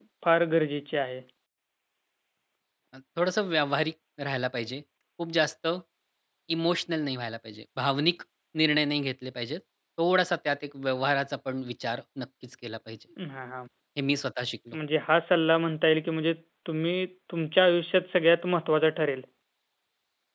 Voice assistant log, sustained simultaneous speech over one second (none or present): none